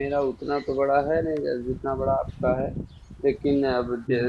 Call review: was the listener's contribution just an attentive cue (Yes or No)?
Yes